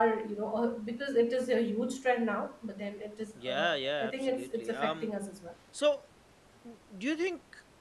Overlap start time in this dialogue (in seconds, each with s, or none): 3.4 s